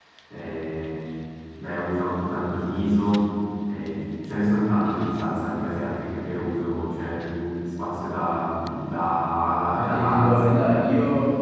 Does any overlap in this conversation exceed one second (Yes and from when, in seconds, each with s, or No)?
Yes, from 9.7 s